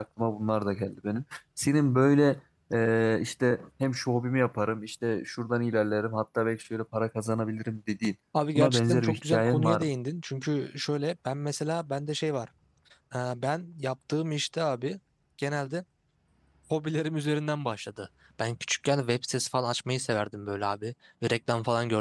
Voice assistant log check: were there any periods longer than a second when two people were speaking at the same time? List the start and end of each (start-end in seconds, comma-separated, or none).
8.6-9.9